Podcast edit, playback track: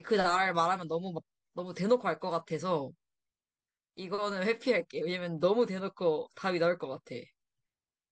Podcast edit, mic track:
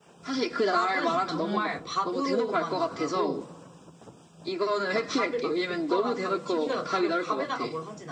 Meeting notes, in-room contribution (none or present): present